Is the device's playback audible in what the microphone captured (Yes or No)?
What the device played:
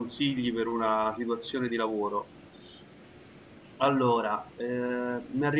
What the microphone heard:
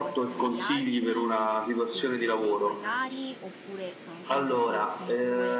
Yes